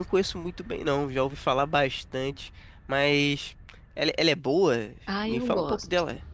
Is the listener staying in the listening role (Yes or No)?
No